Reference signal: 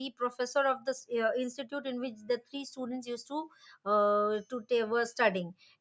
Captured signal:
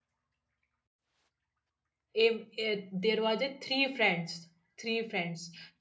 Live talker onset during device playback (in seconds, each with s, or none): 2.2 s